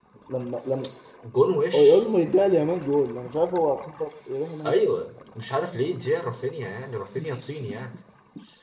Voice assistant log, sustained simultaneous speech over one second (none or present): none